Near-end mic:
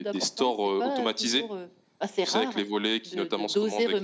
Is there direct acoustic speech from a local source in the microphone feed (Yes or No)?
No